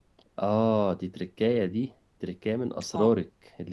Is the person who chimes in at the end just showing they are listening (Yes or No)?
Yes